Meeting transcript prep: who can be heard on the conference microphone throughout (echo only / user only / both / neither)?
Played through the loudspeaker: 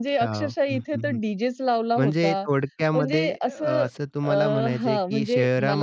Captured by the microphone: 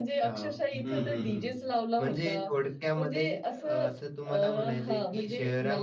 both